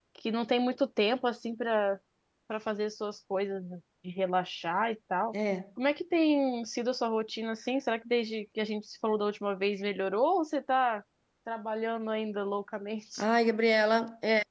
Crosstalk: none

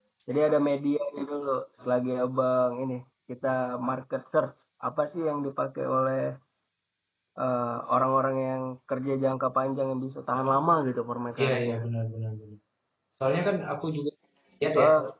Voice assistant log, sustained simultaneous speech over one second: none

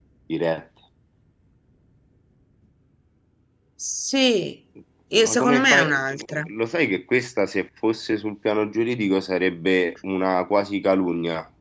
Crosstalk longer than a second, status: present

